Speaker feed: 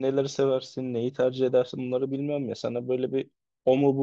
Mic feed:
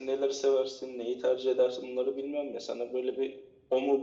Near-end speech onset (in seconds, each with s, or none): none